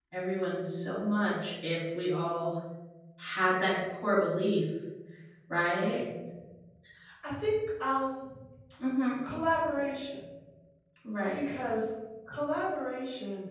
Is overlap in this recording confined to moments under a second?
Yes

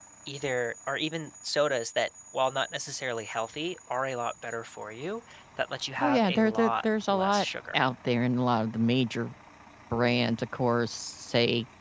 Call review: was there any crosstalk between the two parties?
Yes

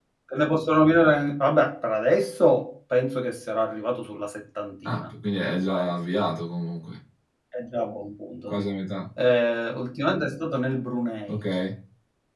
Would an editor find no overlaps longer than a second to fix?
Yes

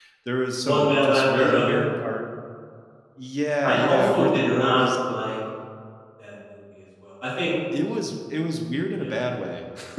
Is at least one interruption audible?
Yes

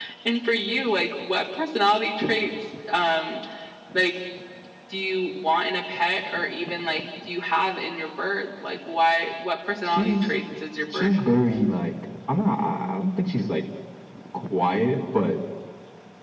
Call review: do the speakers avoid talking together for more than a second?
Yes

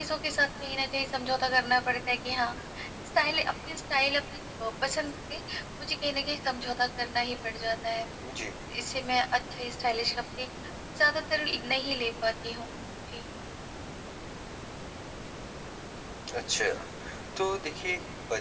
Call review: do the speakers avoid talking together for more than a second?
Yes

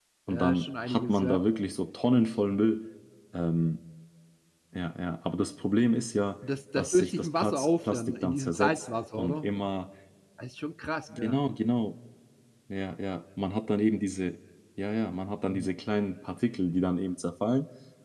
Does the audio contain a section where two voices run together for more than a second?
Yes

